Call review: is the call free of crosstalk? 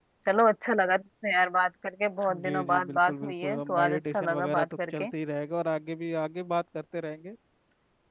No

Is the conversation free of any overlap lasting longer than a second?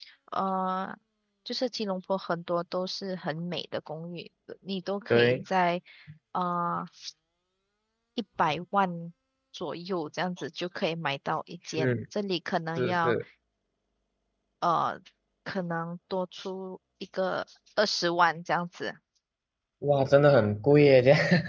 Yes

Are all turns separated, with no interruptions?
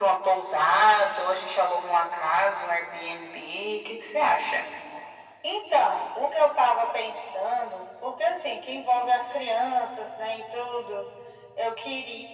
Yes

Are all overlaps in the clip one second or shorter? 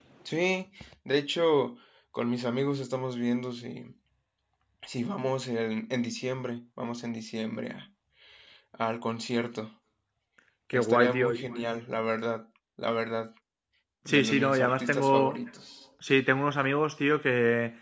No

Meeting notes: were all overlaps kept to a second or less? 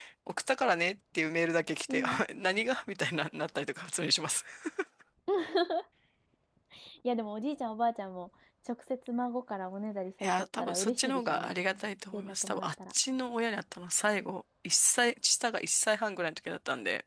No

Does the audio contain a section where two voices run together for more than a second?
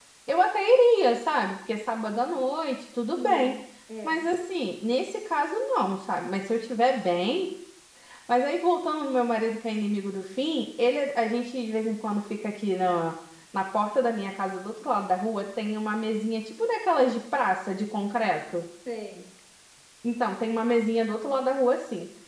No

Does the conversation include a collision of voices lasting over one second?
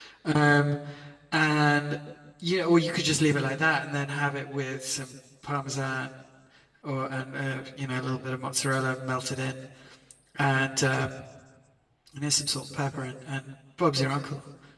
No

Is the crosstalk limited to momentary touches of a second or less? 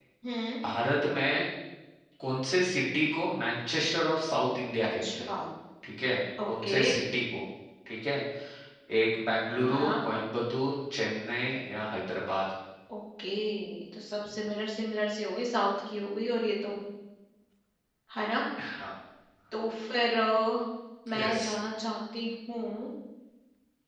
Yes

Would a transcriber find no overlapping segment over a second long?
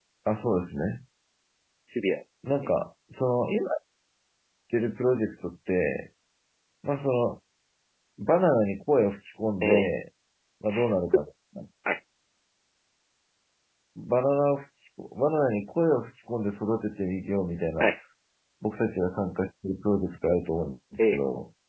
Yes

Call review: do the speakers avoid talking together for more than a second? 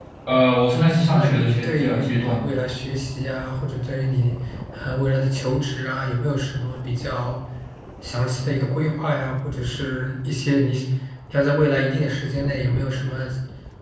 No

